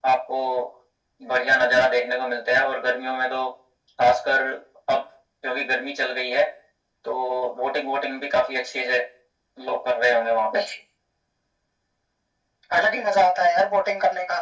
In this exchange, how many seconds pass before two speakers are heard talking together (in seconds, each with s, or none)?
none